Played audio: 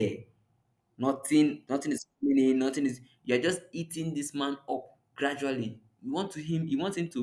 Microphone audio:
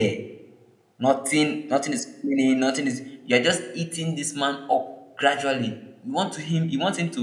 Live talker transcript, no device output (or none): none